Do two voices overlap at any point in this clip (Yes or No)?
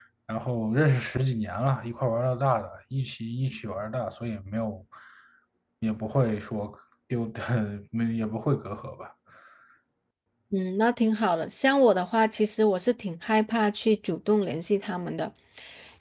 No